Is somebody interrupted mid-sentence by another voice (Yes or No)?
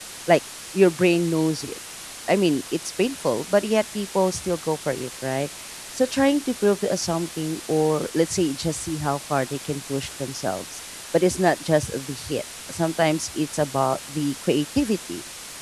No